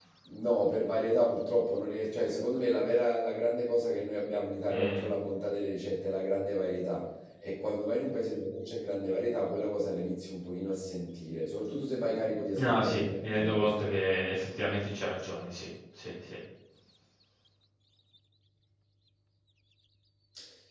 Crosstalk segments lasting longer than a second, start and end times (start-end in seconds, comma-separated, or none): 12.6-13.8